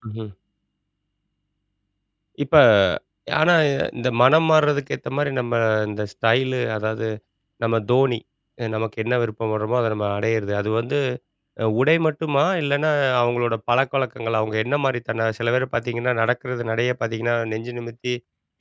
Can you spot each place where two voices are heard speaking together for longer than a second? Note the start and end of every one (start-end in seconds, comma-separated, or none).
none